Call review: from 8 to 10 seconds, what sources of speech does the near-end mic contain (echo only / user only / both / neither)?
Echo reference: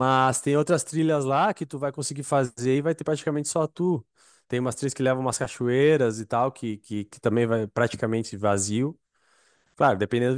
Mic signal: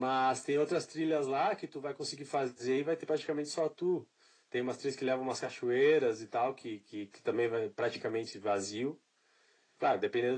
echo only